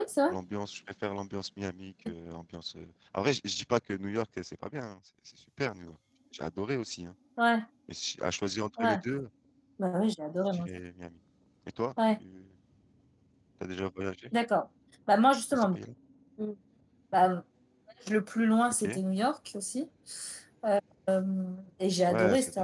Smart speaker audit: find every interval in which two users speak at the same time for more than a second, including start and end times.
none

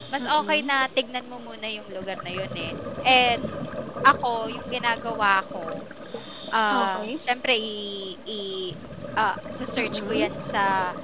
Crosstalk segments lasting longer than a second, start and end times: none

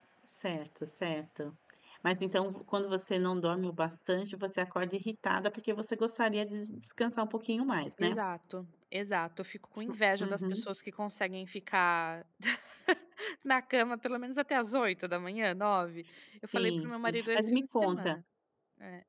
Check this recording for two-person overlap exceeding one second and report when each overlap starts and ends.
16.5-18.1

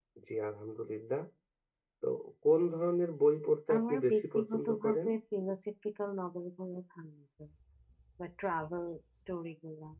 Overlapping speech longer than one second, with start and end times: 3.7-5.1

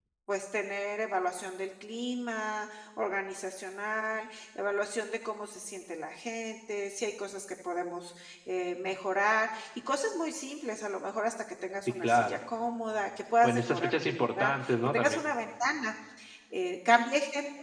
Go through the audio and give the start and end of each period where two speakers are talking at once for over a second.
13.4-15.2

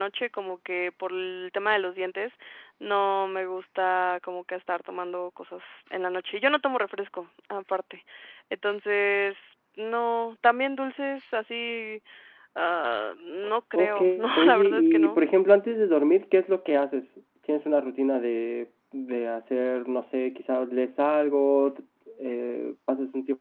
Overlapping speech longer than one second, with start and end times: 13.8-15.2

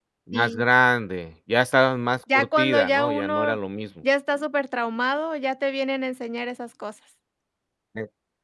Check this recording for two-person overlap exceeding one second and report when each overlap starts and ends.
2.3-3.6

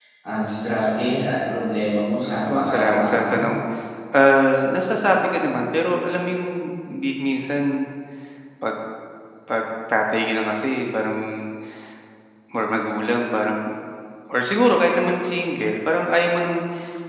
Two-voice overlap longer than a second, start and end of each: 2.2-3.5

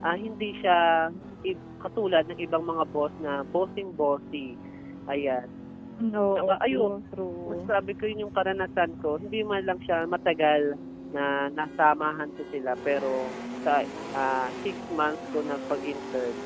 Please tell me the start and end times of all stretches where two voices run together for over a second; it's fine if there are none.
none

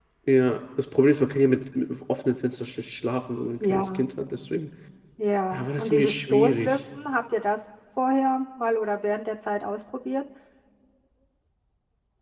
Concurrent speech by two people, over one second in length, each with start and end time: 5.5-6.8

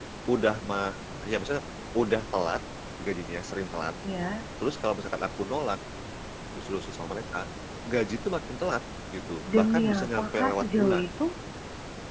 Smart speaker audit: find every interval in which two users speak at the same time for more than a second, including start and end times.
9.5-11.1

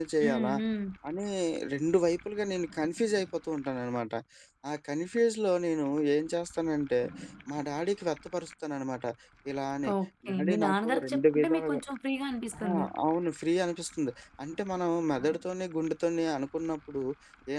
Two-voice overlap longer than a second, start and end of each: 10.3-11.8

